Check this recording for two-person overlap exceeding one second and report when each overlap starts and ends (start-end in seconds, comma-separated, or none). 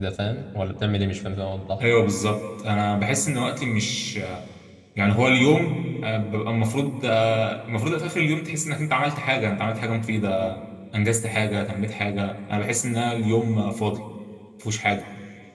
none